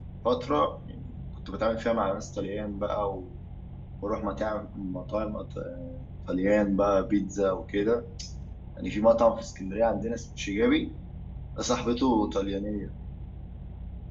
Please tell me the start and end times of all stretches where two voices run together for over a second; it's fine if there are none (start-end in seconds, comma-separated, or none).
none